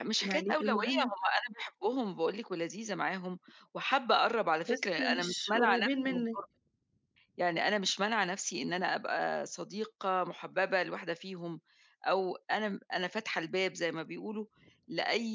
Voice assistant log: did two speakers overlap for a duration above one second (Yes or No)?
Yes